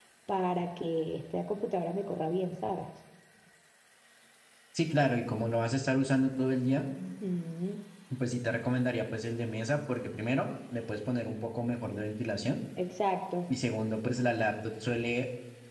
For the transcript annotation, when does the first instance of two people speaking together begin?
none

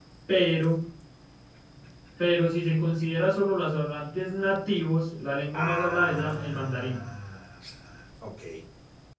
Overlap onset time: 5.5 s

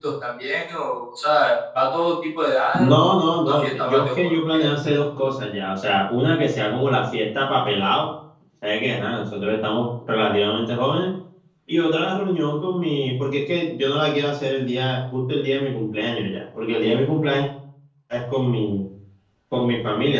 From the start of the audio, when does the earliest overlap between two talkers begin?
2.7 s

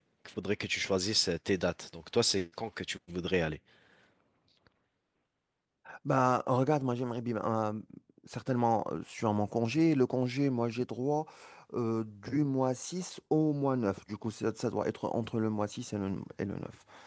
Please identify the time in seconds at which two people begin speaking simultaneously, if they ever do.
none

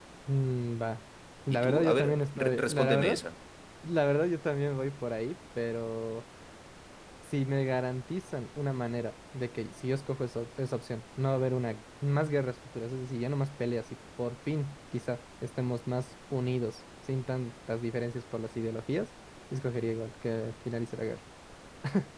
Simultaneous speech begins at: 1.5 s

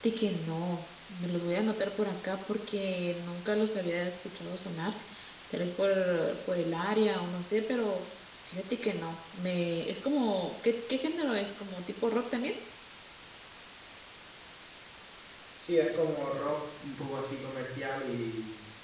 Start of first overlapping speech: none

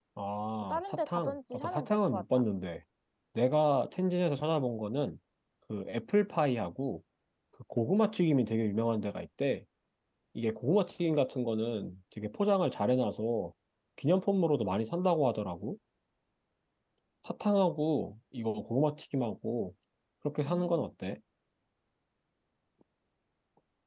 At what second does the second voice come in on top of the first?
0.6 s

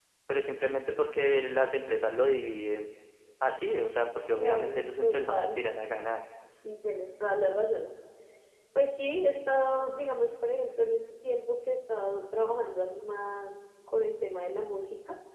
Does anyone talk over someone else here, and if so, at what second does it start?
4.4 s

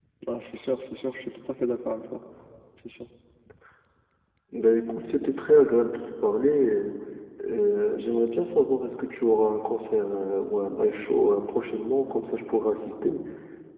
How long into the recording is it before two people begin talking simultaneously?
none

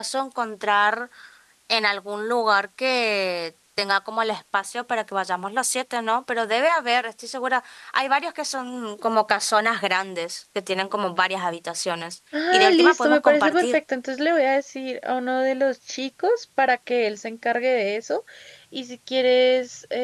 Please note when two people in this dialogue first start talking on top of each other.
12.3 s

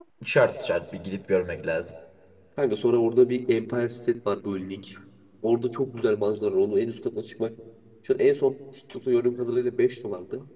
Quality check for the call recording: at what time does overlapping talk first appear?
none

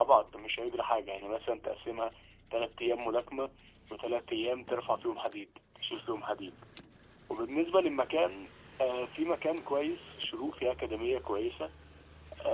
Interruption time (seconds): none

